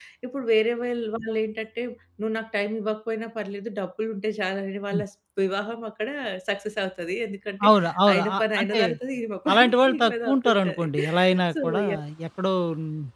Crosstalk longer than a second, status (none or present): present